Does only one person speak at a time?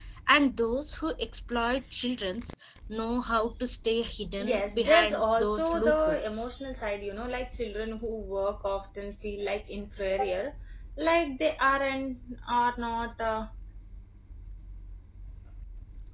No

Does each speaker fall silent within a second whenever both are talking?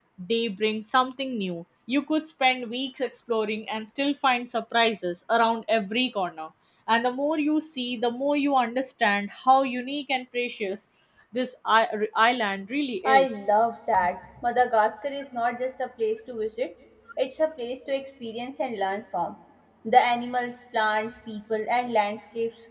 Yes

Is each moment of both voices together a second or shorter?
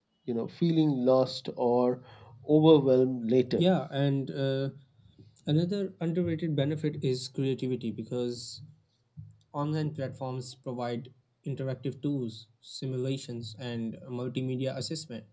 Yes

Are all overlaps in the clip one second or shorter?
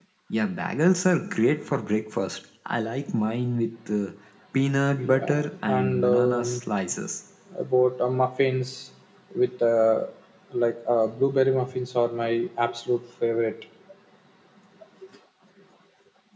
No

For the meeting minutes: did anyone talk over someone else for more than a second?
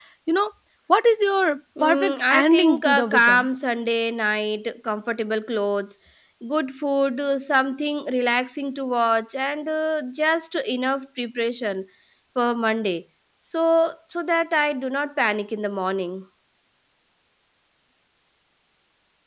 Yes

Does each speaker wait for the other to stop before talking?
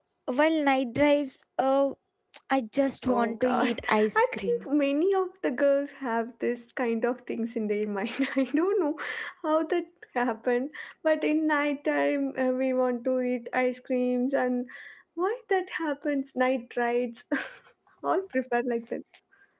No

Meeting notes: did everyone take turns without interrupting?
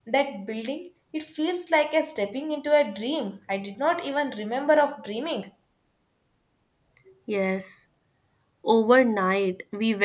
Yes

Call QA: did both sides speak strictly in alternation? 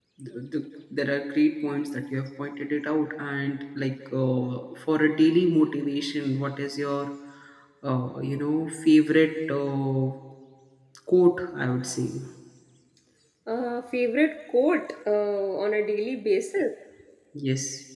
Yes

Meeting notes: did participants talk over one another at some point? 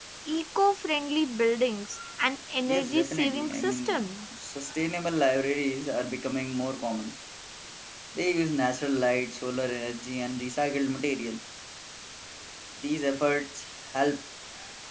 Yes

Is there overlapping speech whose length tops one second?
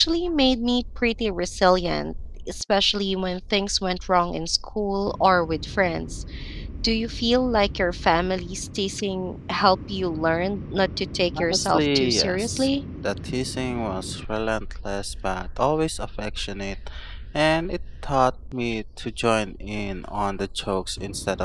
Yes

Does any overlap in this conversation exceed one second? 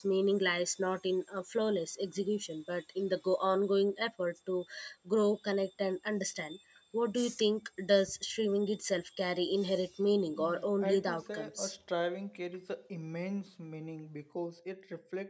Yes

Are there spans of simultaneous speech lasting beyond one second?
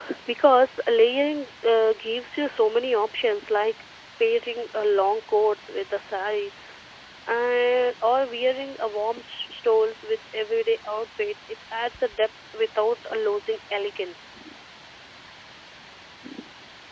No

